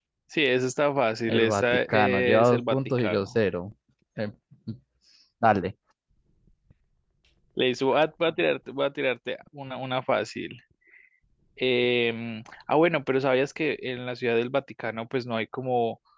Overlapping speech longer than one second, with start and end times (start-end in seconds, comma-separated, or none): 1.3-3.4